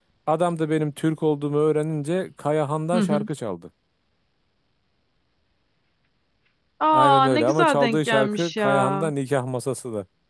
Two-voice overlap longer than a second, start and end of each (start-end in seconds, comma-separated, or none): 6.9-9.1